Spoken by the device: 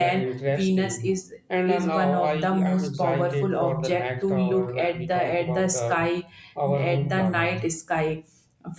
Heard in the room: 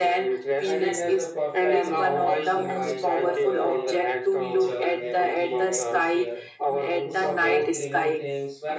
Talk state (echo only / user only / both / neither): both